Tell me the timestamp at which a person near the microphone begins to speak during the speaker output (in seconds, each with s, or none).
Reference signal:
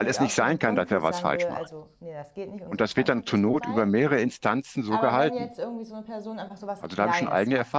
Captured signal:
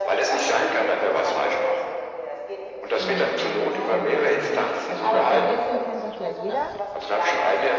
2.9 s